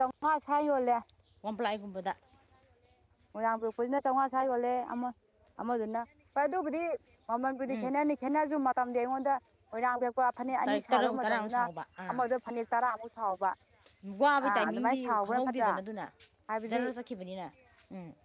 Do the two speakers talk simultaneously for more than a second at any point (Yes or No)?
Yes